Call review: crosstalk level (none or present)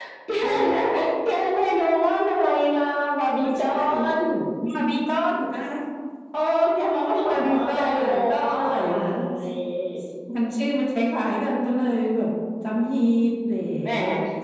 present